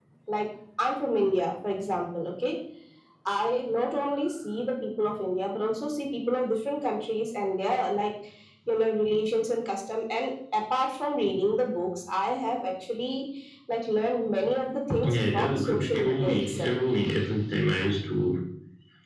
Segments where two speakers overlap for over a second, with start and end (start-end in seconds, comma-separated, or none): 15.0-16.8